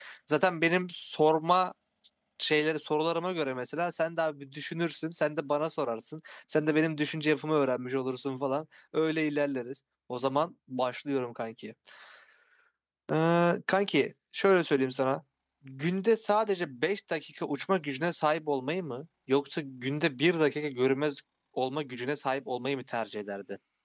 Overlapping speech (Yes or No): No